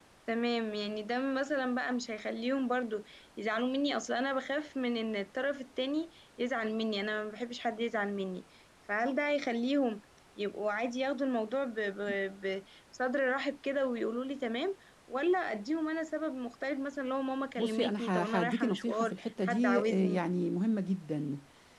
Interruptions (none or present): present